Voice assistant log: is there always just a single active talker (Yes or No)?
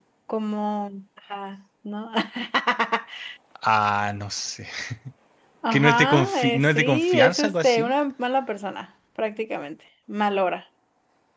No